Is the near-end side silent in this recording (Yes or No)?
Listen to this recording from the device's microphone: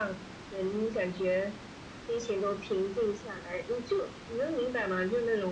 Yes